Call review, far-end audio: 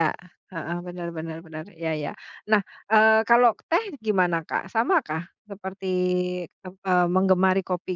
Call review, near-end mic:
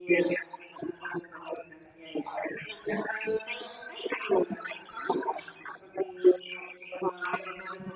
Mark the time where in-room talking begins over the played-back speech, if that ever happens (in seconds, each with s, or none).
none